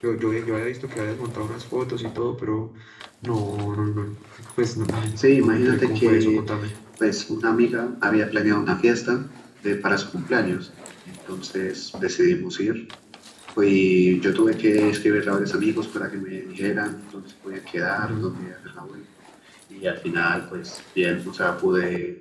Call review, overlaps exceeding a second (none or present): present